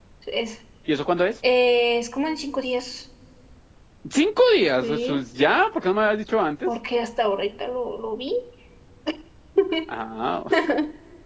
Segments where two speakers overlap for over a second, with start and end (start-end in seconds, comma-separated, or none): none